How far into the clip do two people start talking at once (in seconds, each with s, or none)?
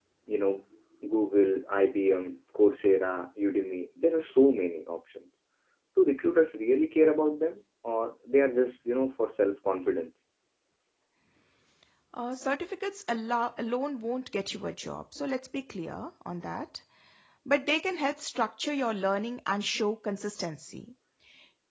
none